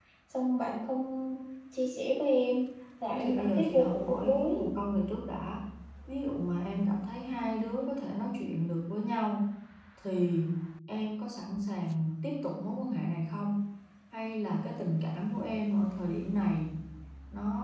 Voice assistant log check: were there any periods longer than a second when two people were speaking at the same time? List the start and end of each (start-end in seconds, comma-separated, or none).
3.1-4.6